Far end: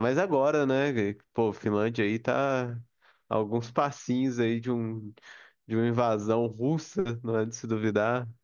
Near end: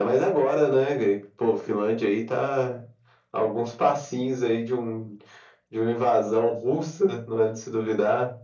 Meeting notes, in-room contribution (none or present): none